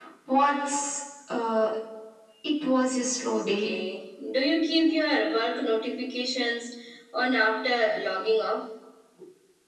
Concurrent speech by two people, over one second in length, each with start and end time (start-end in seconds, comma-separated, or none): none